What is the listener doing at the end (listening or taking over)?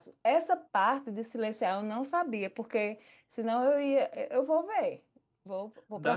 taking over